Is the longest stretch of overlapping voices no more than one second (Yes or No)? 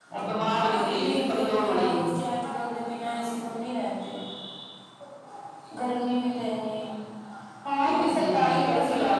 No